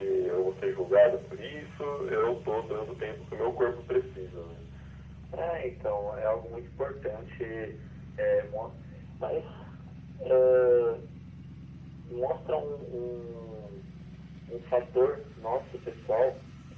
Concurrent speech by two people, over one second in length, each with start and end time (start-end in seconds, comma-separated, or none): none